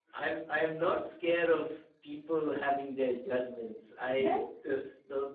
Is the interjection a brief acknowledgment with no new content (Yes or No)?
Yes